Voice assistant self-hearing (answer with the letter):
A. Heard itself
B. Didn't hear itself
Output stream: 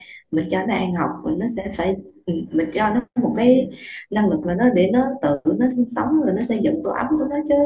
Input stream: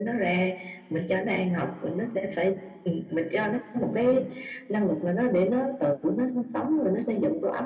A